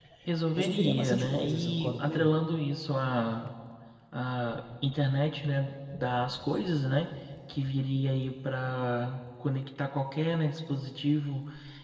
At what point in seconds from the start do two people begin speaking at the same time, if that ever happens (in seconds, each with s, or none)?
0.5 s